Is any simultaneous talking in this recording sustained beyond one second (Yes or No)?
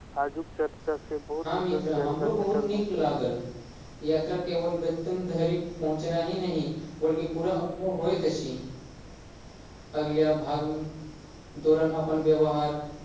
Yes